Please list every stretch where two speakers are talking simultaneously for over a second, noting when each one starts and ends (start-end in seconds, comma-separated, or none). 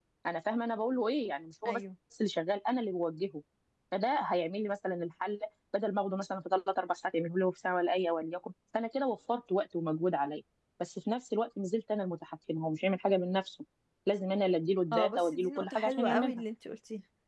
14.9-16.4